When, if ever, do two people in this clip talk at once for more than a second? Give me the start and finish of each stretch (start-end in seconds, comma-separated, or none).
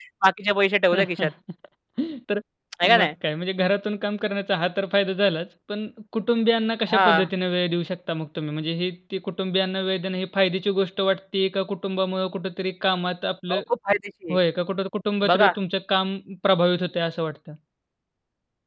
none